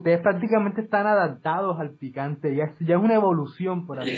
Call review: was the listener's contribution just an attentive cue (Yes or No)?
No